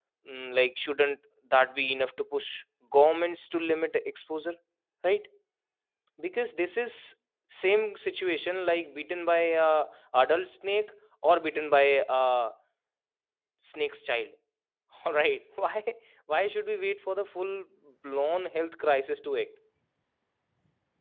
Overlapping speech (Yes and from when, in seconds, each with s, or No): No